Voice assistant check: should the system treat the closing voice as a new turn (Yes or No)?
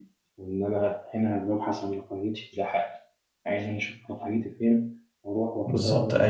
Yes